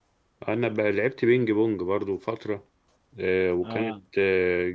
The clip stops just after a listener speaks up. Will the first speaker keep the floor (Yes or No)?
Yes